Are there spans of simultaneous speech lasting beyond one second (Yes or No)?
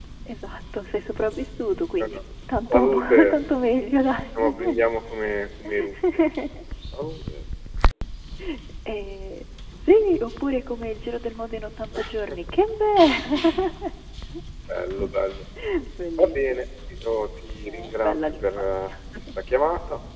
Yes